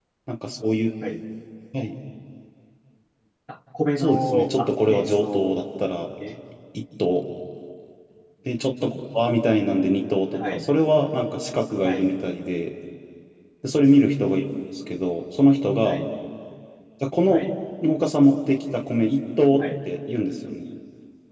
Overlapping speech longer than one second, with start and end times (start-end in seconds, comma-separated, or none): 4.0-5.5